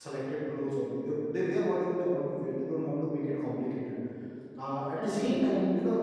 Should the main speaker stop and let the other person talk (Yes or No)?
No